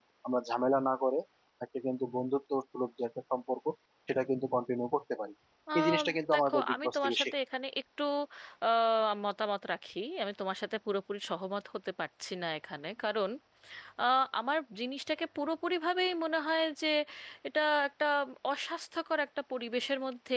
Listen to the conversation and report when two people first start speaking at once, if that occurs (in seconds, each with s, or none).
5.8 s